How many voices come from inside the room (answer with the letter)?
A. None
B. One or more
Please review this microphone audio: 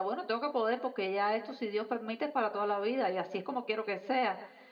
A